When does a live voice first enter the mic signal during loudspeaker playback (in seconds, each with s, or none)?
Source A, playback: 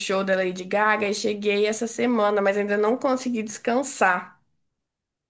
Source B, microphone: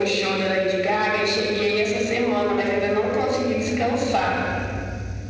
none